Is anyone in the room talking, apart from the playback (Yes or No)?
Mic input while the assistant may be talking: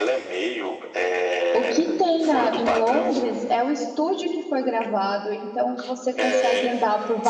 Yes